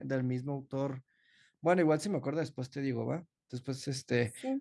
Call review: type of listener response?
listening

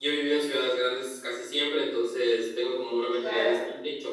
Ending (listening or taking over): listening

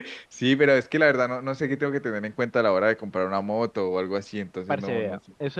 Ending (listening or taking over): taking over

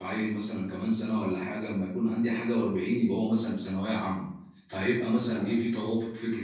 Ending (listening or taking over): listening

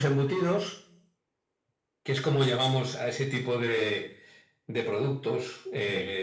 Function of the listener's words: listening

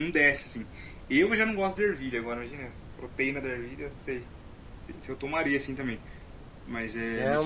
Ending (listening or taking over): taking over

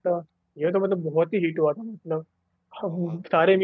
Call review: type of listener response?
listening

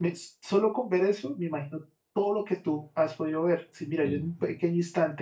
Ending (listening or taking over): listening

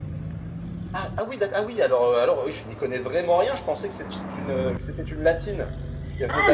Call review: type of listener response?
taking over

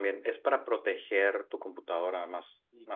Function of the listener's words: taking over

